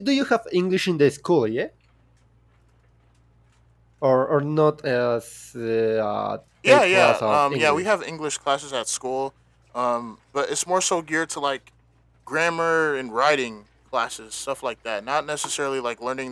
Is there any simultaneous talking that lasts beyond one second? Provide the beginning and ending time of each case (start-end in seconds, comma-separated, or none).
6.7-7.9